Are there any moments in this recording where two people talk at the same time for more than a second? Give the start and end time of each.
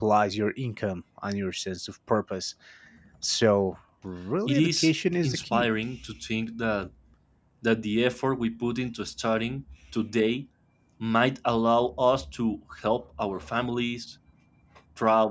4.5-5.7

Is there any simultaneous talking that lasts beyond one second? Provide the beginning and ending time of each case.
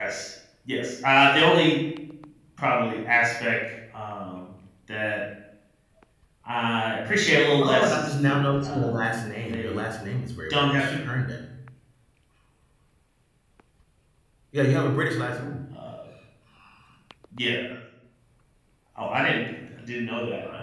7.6-9.0

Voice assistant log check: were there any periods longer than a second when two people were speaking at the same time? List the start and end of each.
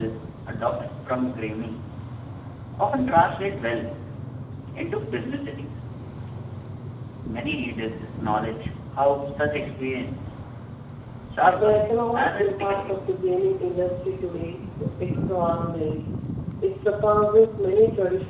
11.6-13.2

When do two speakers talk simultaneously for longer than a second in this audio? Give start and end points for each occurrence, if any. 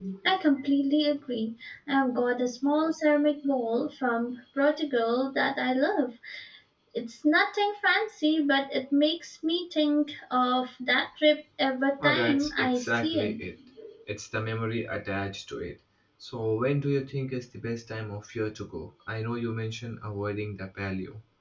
12.0-13.4

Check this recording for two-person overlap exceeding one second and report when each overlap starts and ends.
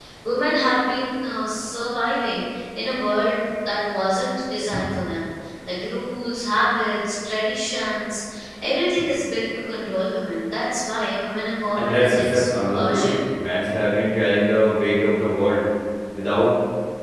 11.8-13.1

